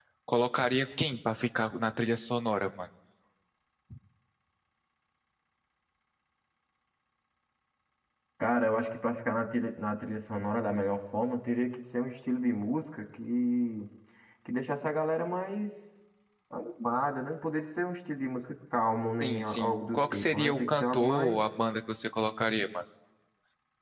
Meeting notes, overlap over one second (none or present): present